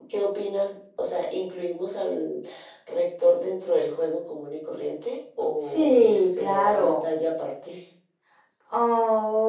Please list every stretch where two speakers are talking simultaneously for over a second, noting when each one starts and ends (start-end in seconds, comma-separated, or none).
5.7-7.0